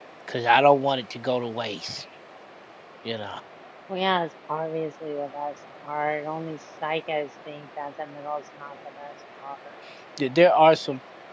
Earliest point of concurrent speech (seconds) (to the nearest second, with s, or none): none